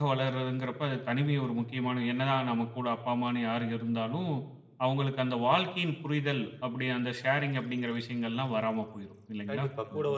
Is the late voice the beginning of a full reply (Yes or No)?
Yes